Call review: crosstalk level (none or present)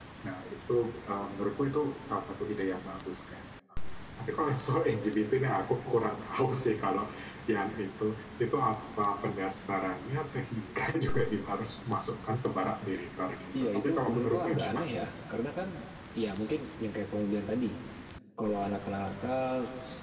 present